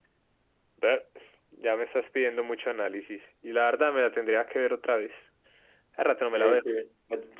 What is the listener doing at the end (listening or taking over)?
taking over